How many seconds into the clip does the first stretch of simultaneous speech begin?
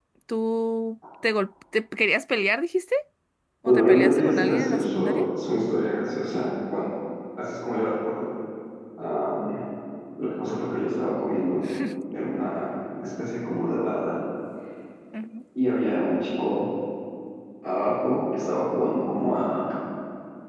4 s

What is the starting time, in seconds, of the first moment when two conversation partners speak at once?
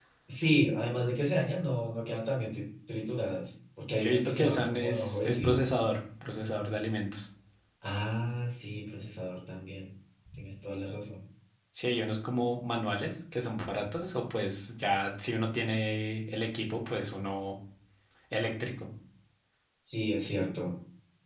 4 s

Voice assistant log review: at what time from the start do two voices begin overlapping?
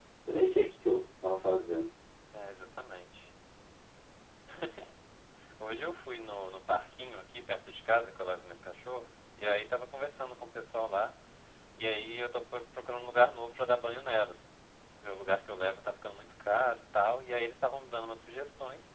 none

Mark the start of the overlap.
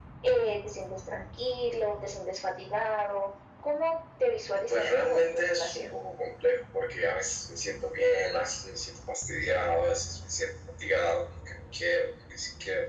5 s

